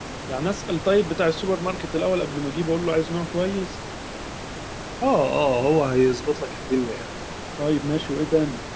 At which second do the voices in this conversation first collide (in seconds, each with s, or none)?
none